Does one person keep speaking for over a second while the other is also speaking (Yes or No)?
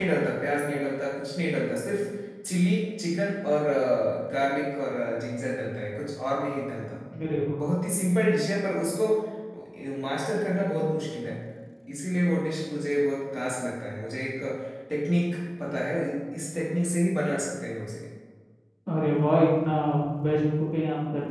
No